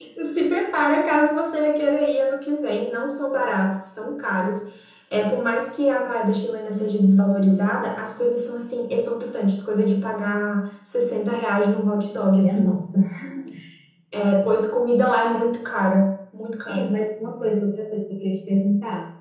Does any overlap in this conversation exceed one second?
No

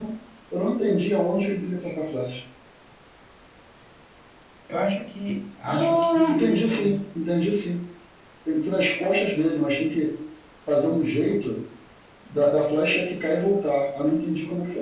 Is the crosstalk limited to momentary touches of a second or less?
No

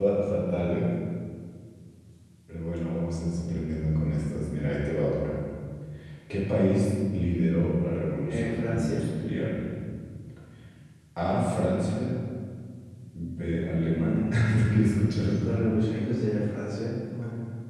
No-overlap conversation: No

